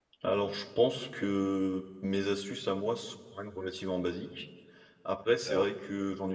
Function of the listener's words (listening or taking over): listening